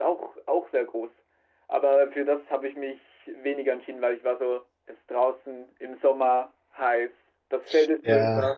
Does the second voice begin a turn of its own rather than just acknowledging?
No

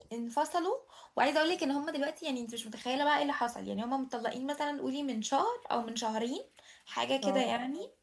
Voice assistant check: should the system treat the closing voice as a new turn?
No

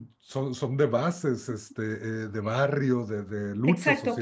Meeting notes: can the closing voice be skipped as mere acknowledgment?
No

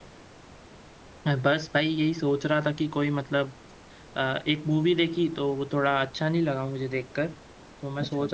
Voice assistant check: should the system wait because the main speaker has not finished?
Yes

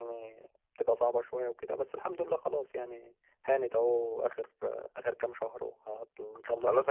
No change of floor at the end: No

